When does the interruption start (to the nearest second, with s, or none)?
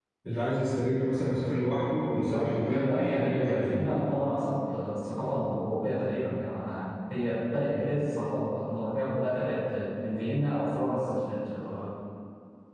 2 s